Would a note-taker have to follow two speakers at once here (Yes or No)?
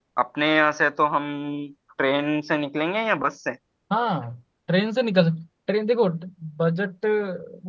No